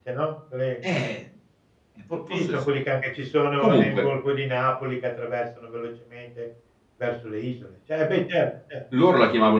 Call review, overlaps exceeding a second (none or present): none